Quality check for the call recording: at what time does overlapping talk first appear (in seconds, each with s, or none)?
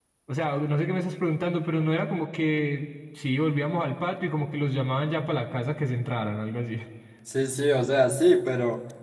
none